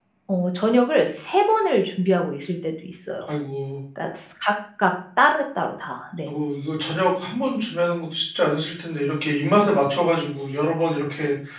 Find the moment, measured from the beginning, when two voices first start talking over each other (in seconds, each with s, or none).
none